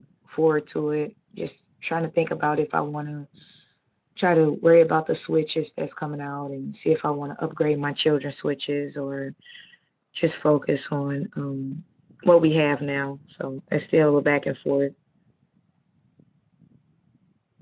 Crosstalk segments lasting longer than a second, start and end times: none

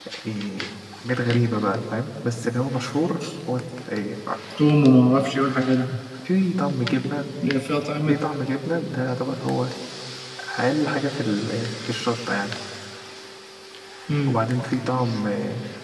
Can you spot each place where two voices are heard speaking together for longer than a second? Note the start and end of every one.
none

